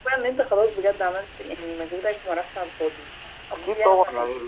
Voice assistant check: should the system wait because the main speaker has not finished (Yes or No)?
No